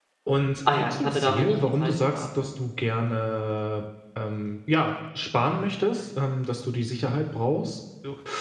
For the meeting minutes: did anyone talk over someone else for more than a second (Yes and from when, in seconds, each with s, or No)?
Yes, from 0.7 s